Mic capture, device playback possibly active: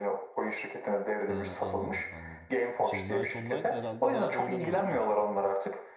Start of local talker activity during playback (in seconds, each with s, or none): 1.3 s